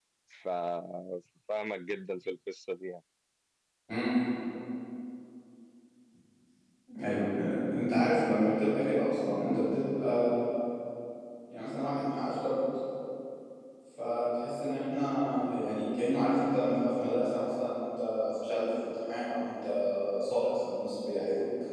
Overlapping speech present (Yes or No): No